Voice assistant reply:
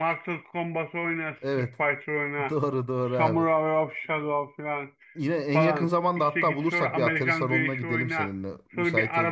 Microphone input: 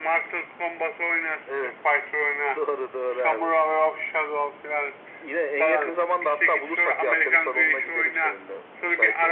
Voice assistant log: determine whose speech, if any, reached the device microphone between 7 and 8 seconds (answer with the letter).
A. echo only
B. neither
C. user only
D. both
A